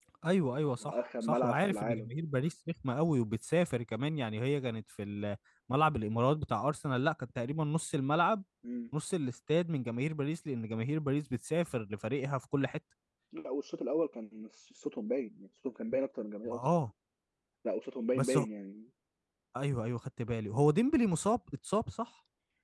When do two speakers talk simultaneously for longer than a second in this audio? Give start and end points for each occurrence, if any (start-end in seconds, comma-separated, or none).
0.8-2.1